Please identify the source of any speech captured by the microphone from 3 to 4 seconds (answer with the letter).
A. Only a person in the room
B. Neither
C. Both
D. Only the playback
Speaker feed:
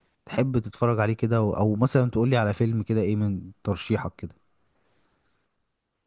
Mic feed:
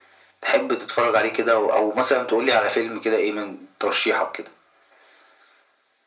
D